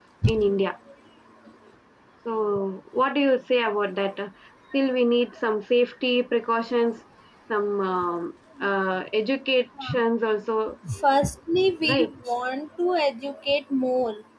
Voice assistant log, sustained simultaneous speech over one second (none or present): none